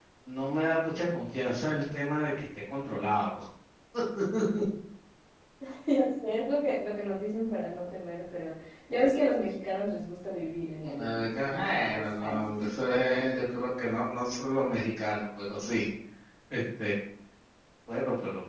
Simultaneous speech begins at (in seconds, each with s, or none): 10.8 s